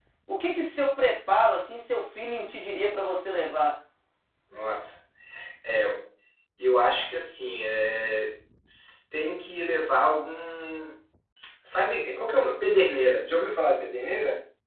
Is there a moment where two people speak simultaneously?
No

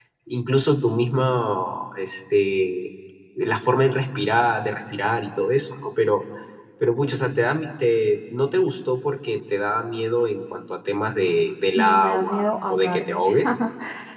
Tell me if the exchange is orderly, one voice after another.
No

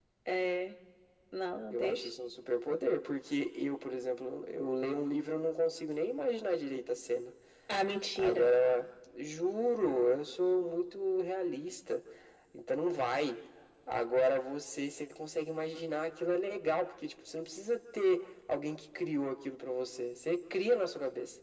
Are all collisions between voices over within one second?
Yes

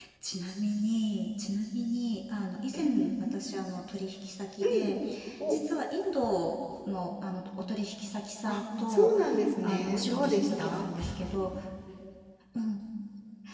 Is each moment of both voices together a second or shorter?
No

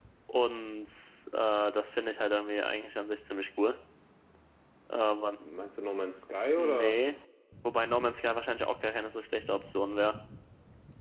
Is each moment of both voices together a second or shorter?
Yes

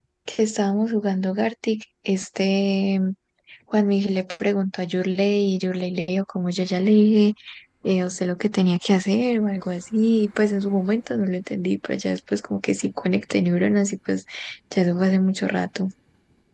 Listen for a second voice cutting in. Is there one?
No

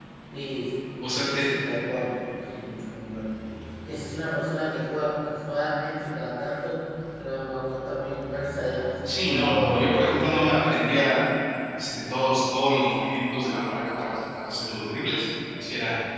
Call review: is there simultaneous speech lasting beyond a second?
Yes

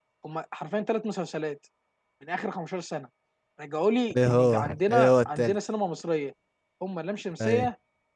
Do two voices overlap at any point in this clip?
Yes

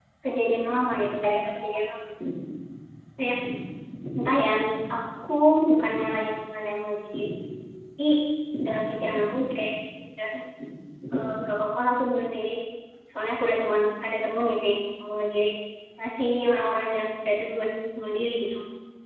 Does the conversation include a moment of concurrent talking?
No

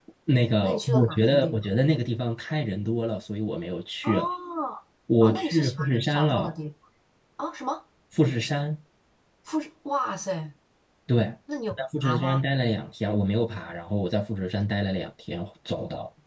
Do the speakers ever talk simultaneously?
Yes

